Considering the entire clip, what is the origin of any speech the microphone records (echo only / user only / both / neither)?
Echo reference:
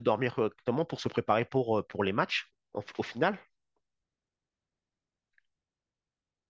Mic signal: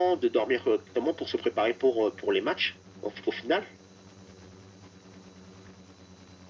echo only